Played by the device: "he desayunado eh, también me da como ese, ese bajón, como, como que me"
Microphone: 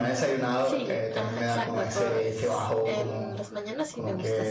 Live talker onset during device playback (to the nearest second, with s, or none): 1 s